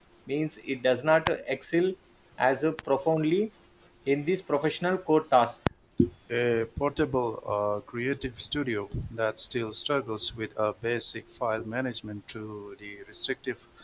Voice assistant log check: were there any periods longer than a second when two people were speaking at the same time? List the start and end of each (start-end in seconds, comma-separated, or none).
none